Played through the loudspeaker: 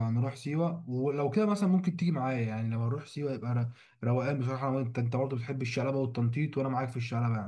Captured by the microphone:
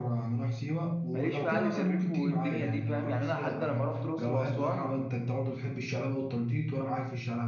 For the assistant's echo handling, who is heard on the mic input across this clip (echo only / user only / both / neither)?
both